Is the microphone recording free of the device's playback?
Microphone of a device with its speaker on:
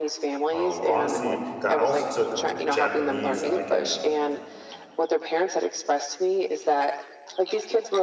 No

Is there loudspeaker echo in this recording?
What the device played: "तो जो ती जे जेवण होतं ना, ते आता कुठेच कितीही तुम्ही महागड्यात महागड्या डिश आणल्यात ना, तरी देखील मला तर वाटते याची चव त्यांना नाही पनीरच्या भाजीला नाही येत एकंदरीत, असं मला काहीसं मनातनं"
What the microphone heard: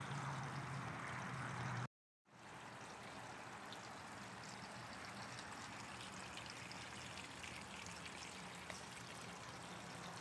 No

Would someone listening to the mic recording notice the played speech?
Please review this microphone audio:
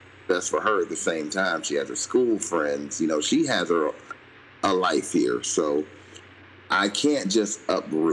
Yes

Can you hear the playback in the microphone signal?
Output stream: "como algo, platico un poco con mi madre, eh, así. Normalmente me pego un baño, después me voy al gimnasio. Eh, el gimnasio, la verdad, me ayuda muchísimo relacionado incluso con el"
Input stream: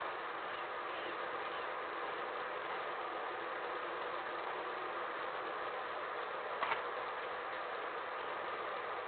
No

